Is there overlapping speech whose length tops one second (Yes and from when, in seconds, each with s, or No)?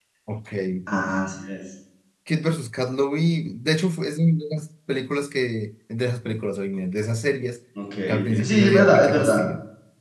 Yes, from 8.1 s